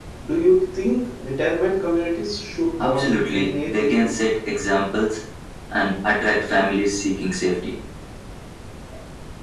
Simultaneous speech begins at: 2.8 s

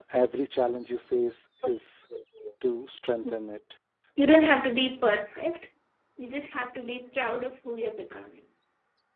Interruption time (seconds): none

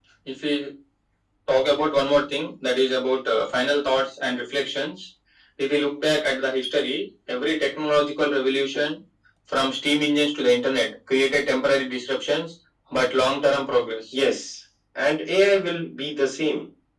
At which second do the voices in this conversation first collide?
none

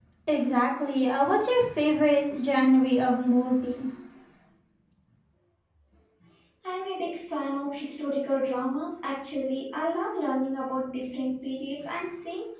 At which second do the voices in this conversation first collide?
none

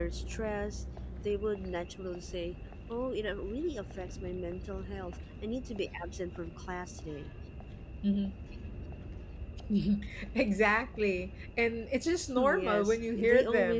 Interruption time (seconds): 12.4 s

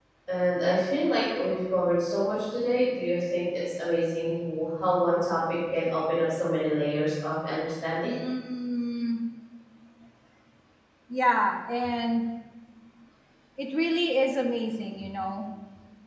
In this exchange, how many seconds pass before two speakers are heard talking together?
none

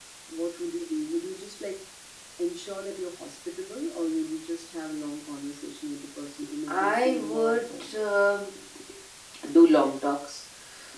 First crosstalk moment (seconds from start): 6.7 s

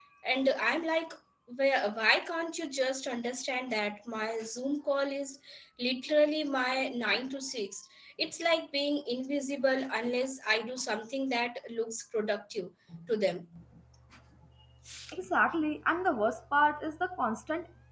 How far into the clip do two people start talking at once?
none

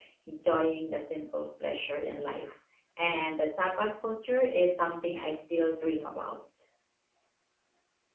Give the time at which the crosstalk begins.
none

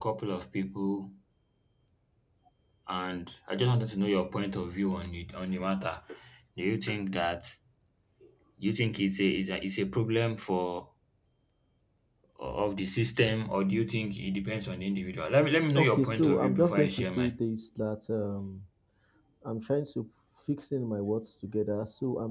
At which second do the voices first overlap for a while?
15.7 s

